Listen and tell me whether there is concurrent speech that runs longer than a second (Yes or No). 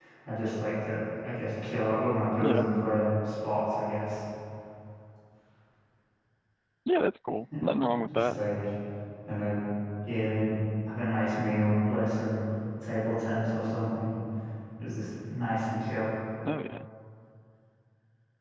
No